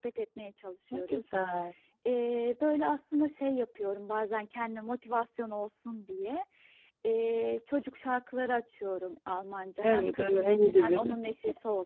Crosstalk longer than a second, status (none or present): present